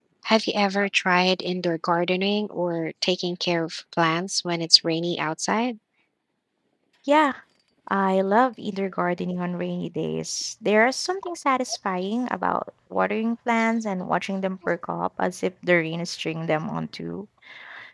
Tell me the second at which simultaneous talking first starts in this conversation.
none

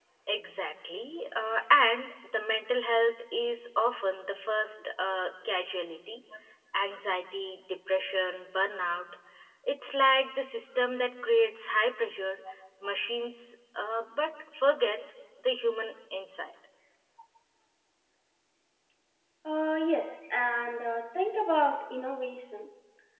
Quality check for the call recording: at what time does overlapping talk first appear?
none

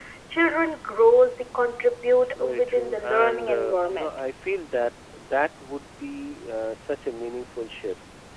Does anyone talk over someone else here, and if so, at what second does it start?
2 s

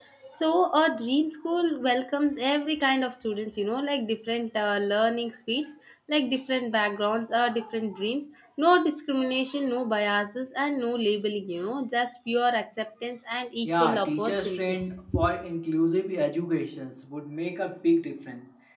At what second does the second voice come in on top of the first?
14 s

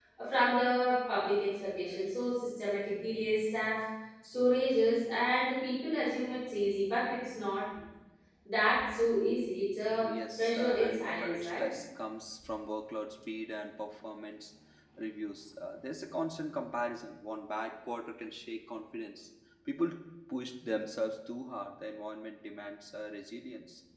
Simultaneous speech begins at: 10 s

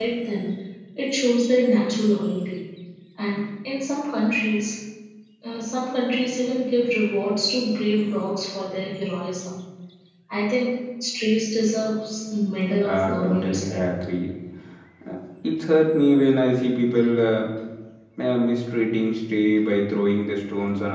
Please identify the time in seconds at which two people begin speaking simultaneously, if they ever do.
13 s

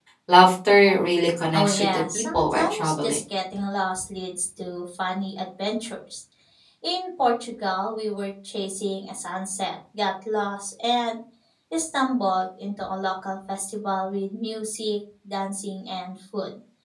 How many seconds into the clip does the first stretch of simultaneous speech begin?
2 s

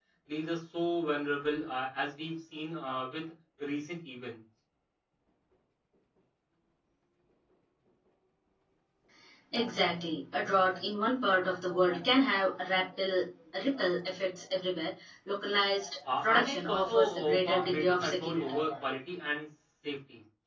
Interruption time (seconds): 16 s

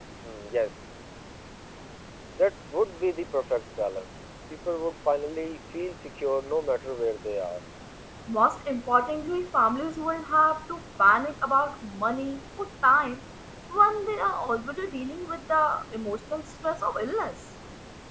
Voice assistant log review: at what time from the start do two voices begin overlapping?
none

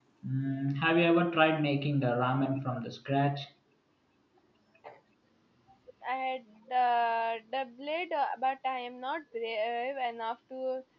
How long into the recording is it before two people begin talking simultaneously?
none

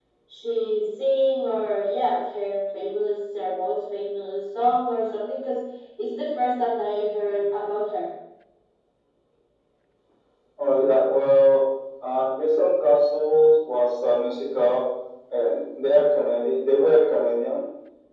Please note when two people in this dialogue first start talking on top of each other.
none

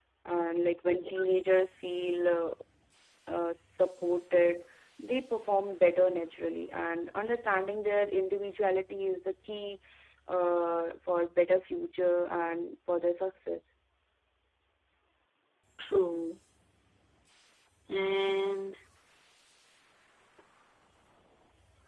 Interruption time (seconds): none

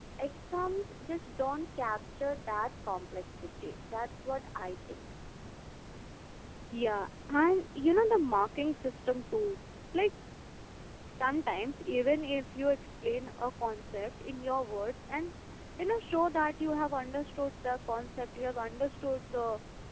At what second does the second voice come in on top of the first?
none

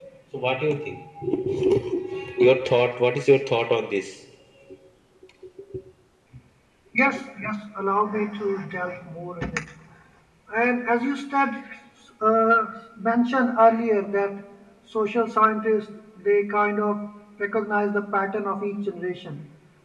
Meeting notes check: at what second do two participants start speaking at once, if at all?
none

